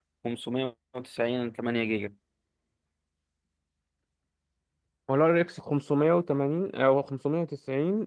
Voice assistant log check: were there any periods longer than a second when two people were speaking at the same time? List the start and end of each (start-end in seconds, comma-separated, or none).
none